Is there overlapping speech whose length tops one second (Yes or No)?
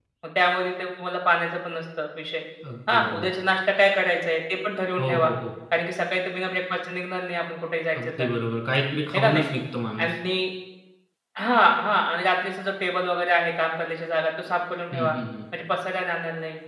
No